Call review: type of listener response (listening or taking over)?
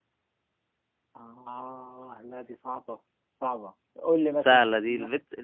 taking over